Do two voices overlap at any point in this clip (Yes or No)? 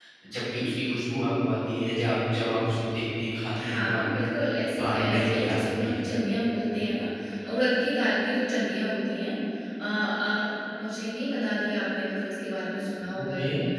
Yes